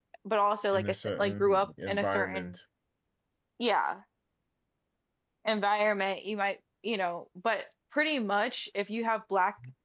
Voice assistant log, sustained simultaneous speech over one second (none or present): present